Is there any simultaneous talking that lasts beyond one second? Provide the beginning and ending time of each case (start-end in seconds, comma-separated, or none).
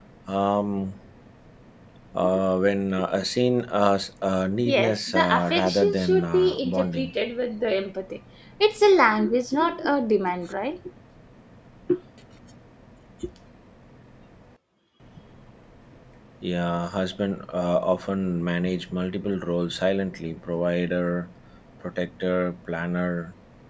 4.7-7.1